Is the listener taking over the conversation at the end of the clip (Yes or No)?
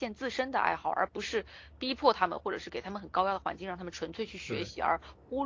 No